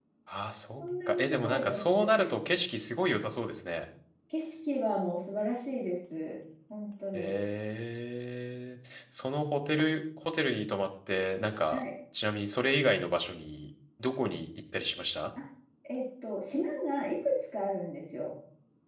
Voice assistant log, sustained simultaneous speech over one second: present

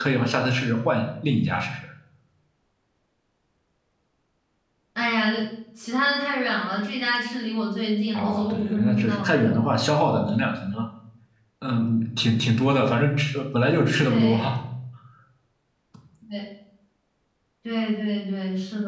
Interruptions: present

